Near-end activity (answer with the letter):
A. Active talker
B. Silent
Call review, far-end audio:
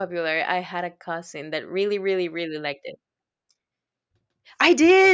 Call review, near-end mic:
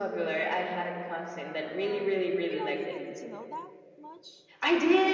A